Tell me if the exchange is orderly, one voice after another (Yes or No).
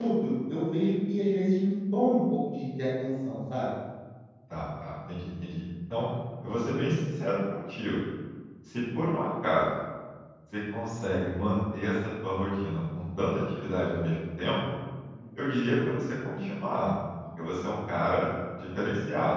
Yes